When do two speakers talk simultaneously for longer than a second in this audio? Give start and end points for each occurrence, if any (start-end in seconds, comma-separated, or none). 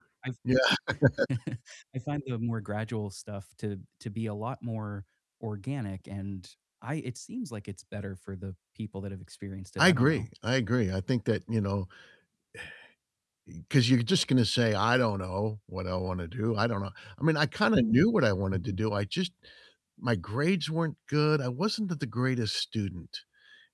none